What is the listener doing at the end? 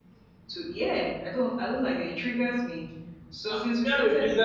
taking over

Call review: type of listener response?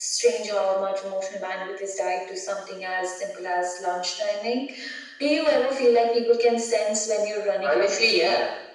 taking over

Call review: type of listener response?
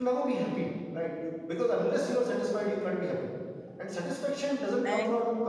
listening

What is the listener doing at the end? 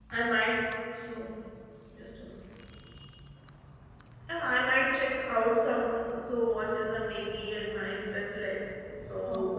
listening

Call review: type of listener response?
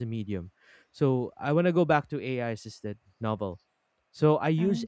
listening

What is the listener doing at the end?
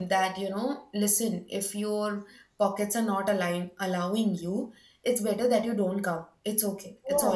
listening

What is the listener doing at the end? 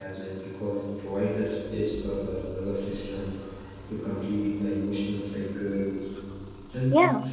listening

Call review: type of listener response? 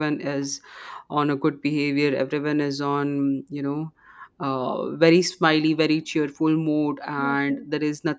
listening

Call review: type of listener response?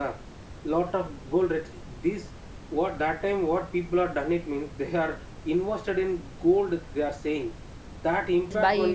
listening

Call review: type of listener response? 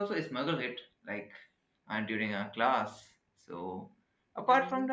listening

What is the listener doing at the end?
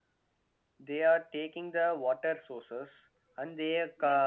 taking over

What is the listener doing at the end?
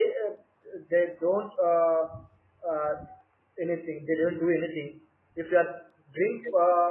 listening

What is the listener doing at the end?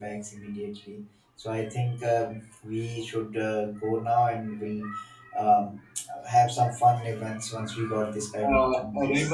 taking over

